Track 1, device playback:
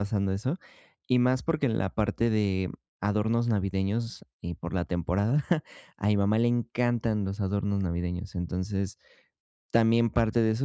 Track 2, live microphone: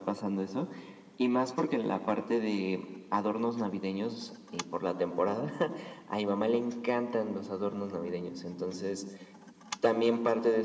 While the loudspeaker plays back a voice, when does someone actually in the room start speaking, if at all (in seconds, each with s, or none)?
none